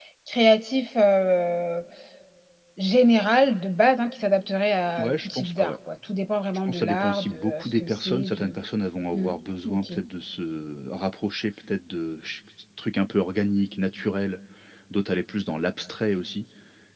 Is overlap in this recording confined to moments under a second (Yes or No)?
No